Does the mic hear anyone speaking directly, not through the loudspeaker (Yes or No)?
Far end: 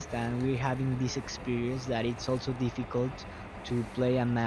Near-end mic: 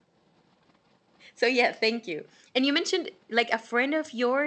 Yes